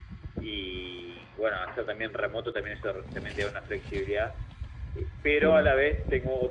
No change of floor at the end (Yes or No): Yes